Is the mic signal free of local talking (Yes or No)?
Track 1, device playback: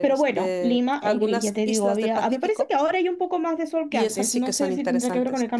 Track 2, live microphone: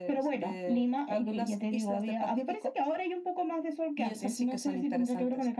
Yes